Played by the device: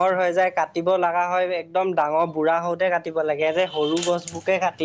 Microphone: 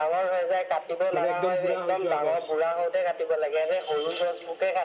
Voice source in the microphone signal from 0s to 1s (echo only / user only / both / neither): echo only